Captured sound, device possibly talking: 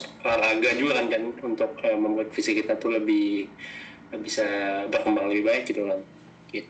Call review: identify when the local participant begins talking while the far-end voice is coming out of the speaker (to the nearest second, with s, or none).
none